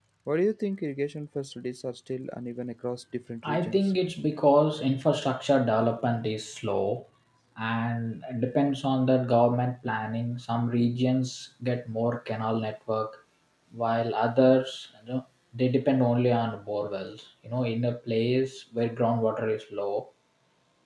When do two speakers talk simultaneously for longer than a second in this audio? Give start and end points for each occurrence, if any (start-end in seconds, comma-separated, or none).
none